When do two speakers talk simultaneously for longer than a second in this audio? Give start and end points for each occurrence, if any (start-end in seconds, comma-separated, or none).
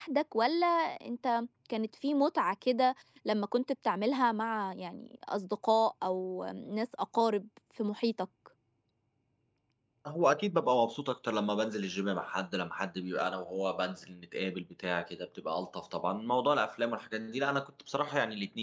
none